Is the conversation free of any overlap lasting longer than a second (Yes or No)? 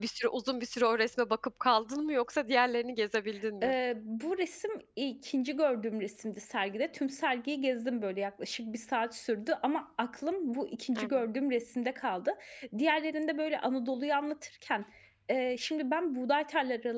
Yes